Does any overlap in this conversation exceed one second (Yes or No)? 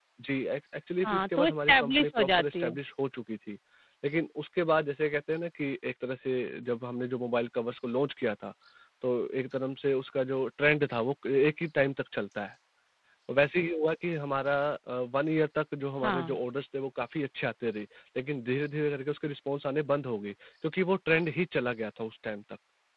Yes